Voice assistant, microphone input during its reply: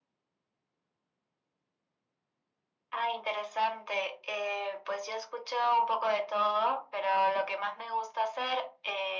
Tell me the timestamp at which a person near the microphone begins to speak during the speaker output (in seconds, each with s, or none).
none